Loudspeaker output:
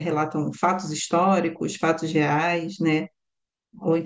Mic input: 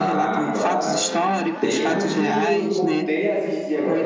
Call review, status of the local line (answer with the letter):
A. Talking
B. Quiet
A